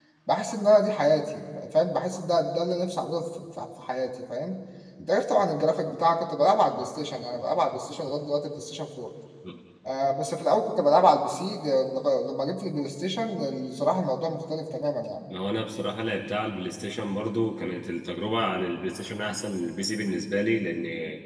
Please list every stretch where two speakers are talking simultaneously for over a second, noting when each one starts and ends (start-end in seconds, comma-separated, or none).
none